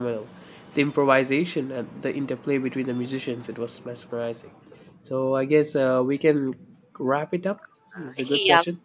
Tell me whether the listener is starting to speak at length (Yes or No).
Yes